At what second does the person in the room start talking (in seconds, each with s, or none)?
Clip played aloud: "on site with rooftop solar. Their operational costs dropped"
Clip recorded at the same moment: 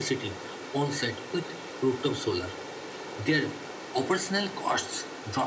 none